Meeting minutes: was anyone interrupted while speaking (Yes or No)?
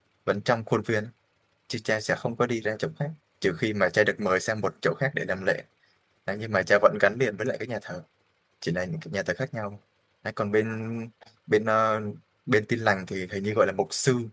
No